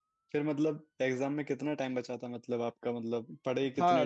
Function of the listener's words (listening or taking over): taking over